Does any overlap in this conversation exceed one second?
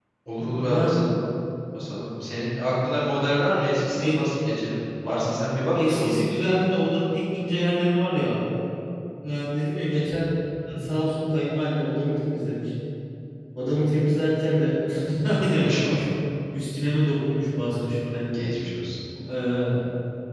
No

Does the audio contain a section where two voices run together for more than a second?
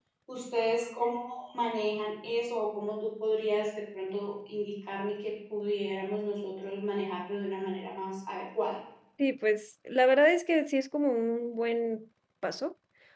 No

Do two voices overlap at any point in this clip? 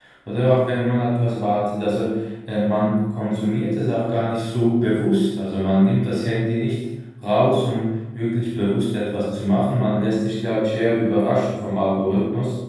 No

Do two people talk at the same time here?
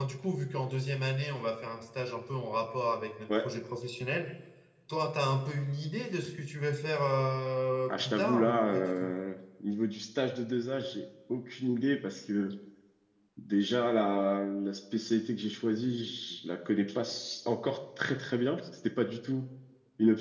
Yes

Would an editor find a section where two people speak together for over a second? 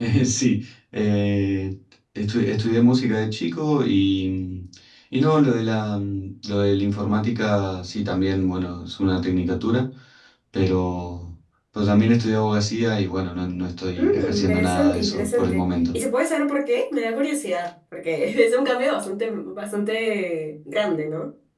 Yes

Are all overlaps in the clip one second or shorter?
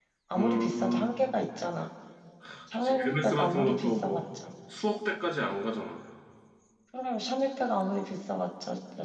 No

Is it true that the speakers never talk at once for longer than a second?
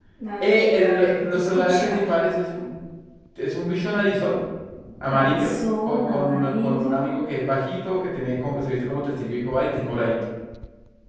No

